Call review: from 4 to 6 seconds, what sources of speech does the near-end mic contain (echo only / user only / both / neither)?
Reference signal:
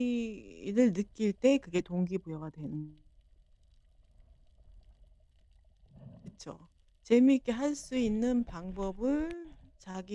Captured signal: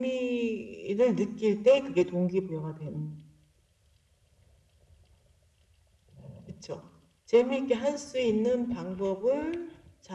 neither